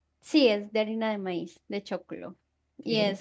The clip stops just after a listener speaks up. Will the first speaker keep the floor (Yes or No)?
No